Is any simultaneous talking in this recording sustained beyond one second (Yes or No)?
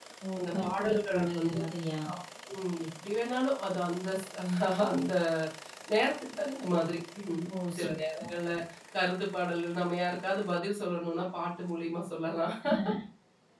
Yes